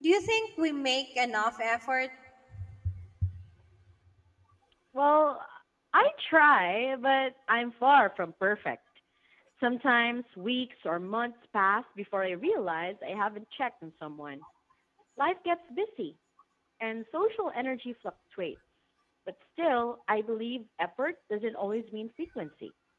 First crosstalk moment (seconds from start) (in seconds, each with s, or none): none